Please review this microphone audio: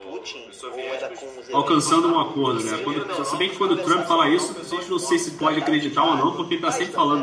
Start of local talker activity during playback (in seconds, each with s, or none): 1.5 s